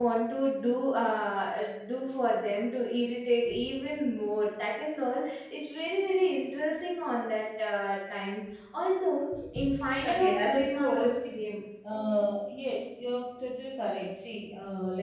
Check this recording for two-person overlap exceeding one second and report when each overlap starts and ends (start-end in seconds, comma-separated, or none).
10.0-11.4